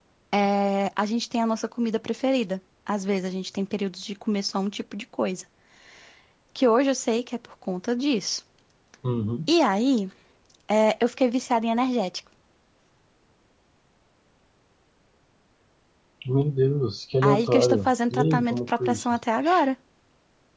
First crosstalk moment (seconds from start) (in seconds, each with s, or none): 17.2 s